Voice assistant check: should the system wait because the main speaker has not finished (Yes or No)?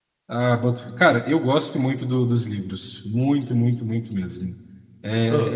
Yes